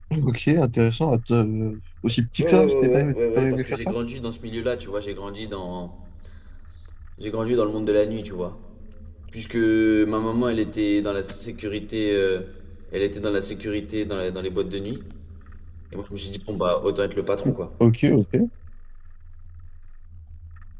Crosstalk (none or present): present